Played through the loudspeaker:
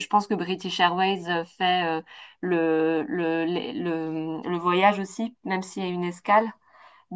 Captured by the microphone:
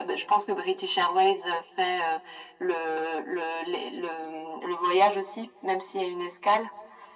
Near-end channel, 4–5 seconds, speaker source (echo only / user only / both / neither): echo only